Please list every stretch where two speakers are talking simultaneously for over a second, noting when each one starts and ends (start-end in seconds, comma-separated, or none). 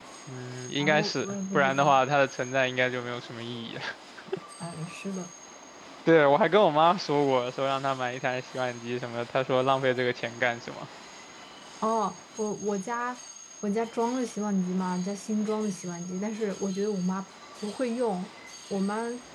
0.8-2.0